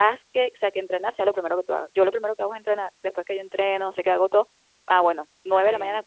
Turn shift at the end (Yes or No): No